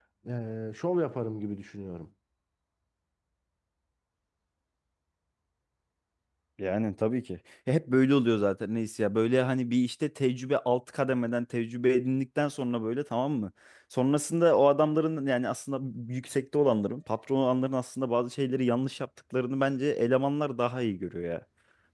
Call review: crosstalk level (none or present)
none